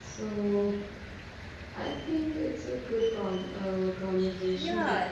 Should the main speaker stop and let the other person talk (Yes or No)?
Yes